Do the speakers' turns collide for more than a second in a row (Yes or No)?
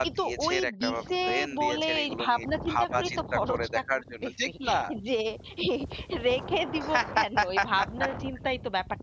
Yes